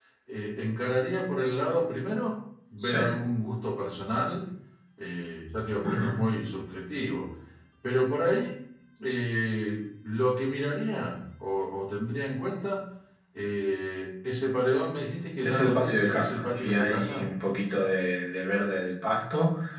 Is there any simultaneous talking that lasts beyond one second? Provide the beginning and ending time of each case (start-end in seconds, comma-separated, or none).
15.4-17.2